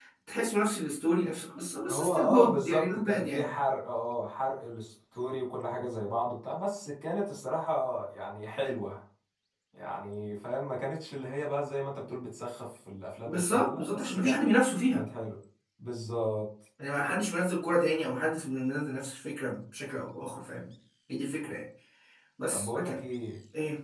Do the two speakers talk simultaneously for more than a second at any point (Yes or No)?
Yes